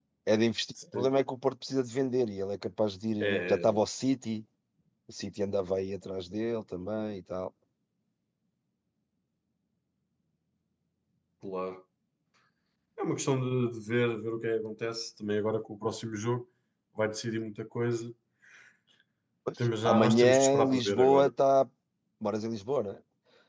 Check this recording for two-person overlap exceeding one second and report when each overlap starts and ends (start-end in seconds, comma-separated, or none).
19.9-21.3